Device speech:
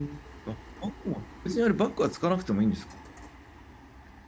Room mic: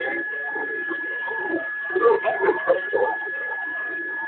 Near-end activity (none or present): none